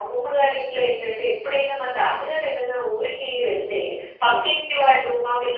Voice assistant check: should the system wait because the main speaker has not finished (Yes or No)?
Yes